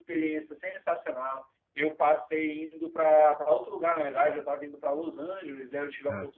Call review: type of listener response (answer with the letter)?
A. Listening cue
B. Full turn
A